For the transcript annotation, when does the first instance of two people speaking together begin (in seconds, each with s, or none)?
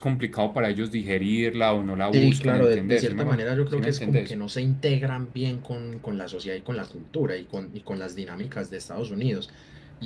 2.1 s